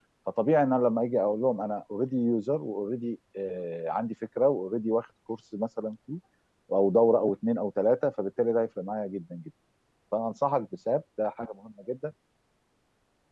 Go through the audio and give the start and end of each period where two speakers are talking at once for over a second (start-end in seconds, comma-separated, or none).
none